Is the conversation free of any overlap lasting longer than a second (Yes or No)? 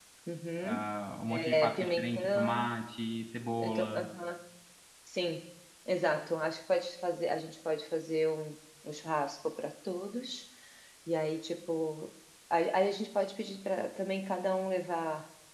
No